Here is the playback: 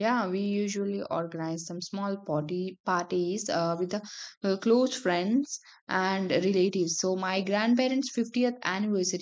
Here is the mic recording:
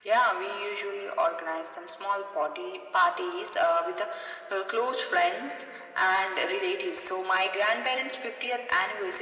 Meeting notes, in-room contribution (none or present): none